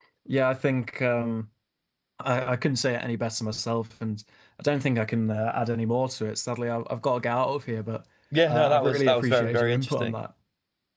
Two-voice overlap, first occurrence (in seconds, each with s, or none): 8.3 s